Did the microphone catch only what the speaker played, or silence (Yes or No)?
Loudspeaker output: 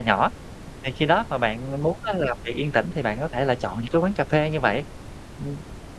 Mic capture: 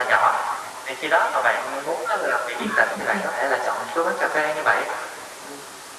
No